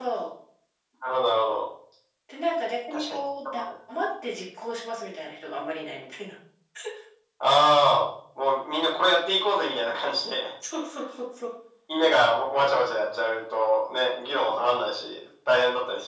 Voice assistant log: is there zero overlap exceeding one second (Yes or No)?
Yes